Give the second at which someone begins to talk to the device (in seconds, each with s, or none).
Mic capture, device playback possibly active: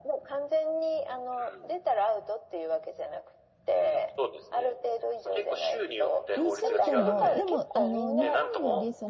6.3 s